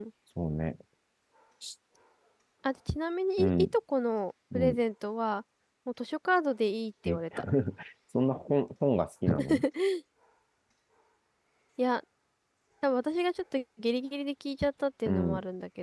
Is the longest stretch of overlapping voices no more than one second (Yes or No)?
Yes